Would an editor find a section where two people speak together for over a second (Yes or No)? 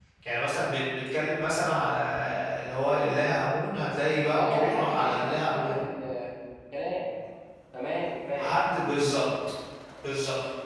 Yes